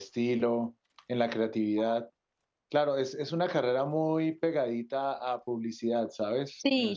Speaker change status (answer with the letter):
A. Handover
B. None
A